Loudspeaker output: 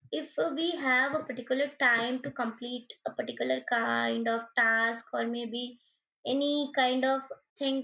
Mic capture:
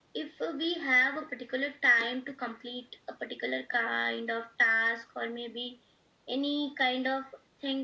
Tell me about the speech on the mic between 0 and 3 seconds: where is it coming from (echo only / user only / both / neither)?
echo only